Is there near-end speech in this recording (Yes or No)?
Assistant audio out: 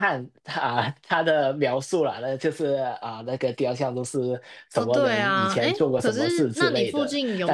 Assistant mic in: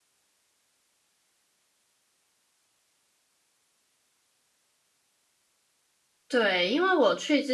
Yes